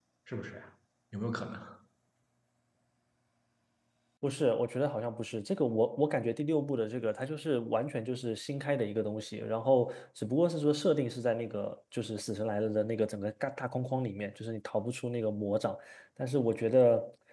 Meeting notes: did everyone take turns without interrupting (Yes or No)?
Yes